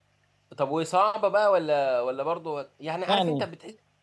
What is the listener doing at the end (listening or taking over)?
listening